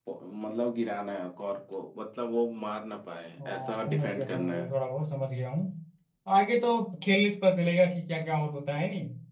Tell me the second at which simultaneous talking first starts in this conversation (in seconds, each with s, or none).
3.4 s